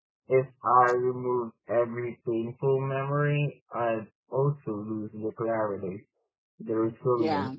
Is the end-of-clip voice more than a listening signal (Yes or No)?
No